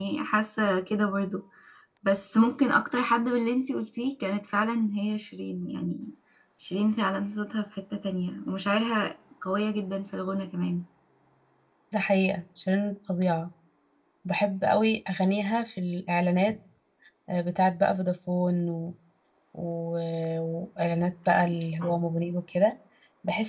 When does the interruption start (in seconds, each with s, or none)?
none